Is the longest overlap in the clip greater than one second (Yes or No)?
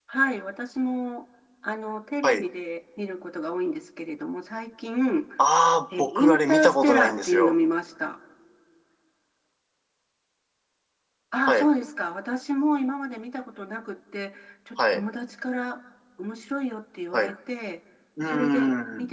Yes